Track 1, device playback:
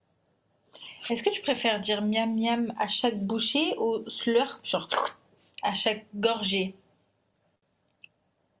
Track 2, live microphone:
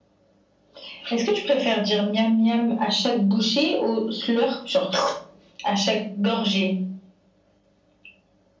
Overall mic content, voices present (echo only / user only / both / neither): echo only